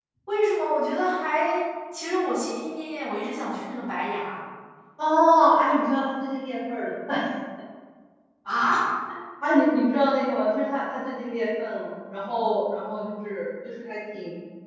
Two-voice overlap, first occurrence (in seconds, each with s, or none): none